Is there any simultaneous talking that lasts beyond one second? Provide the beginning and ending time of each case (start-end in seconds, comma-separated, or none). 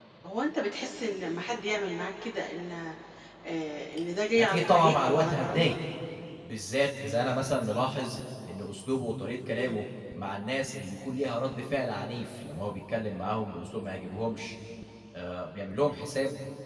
4.4-5.8